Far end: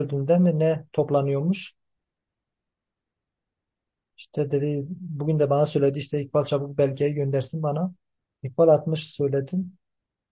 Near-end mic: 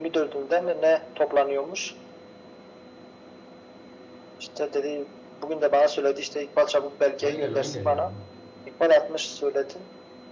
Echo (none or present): present